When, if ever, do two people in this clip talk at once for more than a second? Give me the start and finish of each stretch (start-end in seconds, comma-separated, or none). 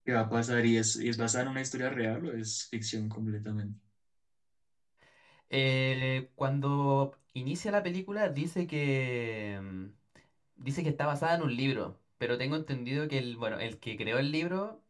none